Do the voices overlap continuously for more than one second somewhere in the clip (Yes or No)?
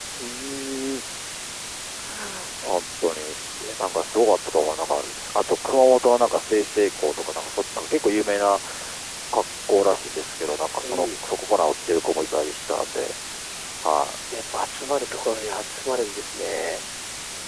No